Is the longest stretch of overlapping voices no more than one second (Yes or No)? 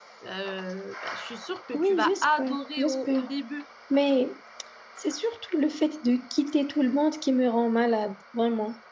No